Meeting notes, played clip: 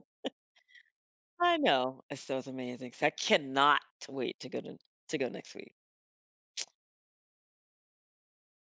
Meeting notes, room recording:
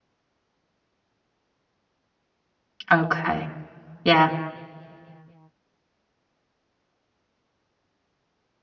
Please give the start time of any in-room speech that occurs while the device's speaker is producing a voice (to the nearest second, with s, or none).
3 s